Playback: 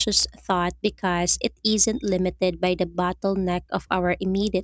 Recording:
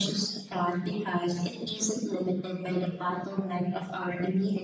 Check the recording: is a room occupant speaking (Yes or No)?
No